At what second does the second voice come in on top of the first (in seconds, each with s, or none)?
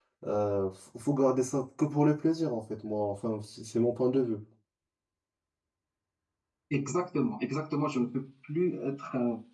none